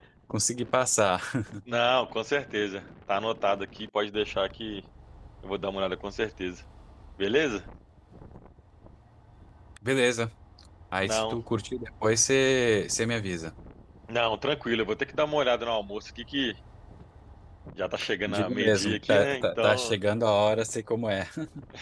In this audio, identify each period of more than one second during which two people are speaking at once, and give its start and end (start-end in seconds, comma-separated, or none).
18.3-19.9